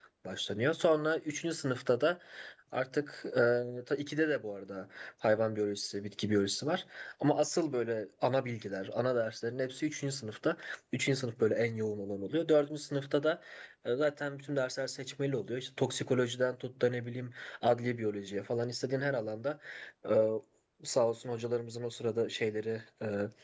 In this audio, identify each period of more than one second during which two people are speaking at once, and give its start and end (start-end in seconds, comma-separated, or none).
none